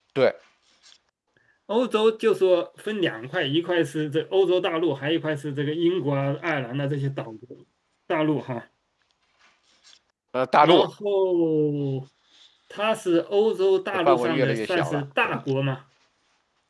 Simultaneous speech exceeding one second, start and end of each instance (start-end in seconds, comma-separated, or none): 14.1-15.3